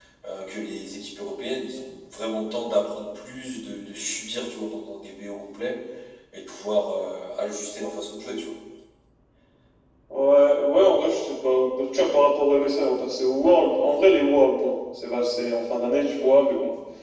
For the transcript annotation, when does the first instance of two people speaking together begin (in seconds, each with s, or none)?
none